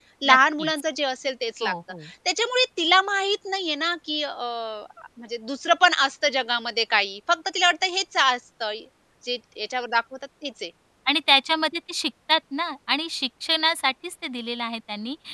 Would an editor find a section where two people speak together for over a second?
No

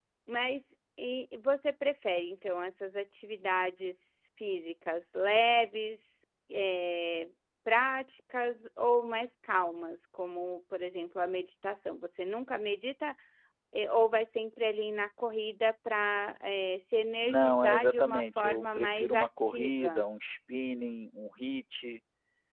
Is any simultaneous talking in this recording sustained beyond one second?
Yes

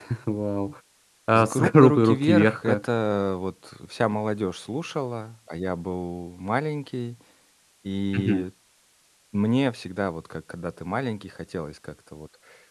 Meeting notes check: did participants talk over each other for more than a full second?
Yes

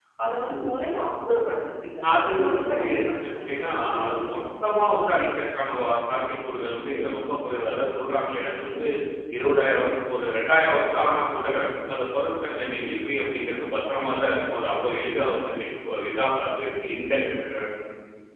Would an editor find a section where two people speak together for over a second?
Yes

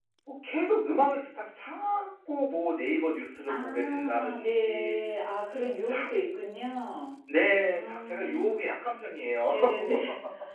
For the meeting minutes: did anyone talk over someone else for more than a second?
Yes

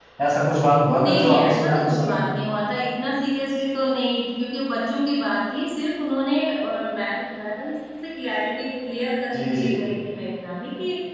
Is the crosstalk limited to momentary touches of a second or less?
No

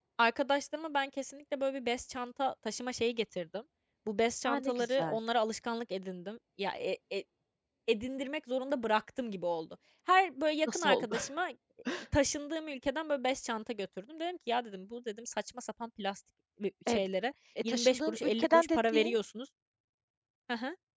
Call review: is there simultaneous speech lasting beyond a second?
Yes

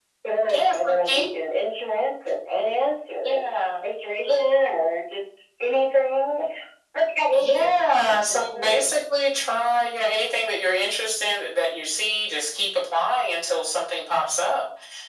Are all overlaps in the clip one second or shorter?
No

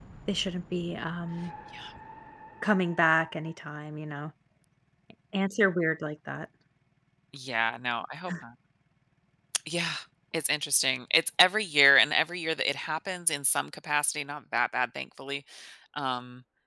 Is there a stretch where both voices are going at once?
No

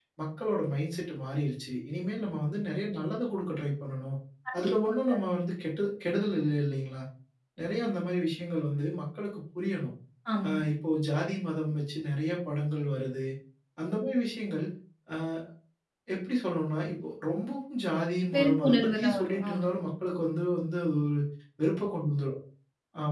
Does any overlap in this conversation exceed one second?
Yes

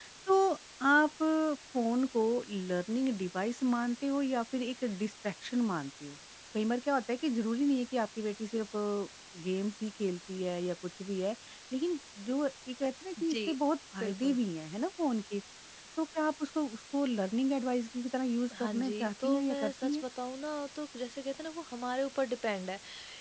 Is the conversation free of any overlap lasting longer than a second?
No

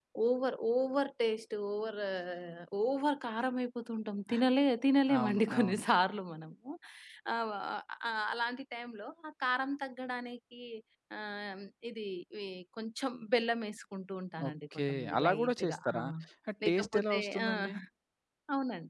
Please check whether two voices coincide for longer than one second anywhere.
Yes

